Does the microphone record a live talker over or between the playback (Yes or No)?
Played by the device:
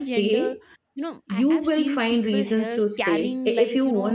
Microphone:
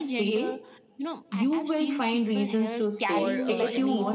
Yes